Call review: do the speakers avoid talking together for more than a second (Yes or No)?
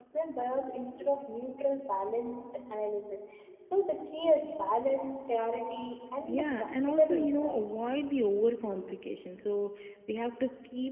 No